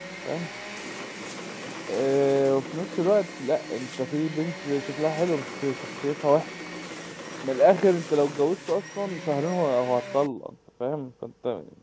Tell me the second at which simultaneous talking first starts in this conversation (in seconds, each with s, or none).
none